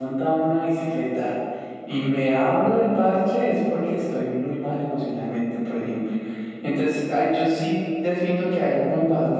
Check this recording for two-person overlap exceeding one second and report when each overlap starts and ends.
none

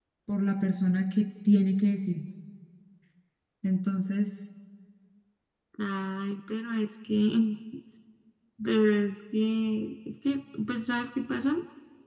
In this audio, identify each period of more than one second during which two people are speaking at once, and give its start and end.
none

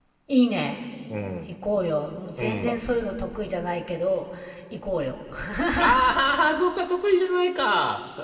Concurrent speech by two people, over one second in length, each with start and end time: none

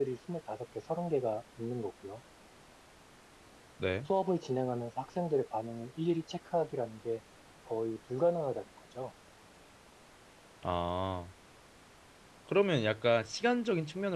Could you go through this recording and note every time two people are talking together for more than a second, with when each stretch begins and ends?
none

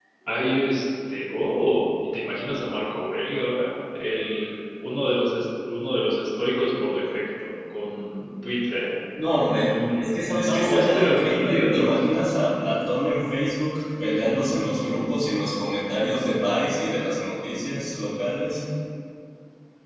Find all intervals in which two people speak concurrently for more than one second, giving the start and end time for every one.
9.6-11.9

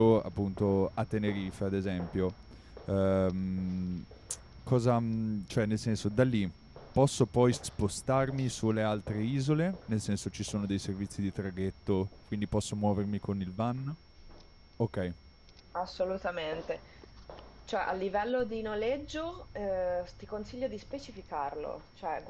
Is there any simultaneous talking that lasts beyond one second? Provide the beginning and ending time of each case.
none

